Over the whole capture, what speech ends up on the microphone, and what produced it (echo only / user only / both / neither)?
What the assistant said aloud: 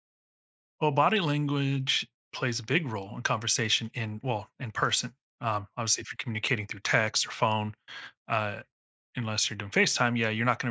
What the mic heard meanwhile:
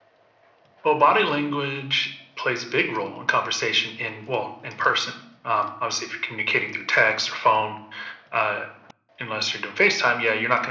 echo only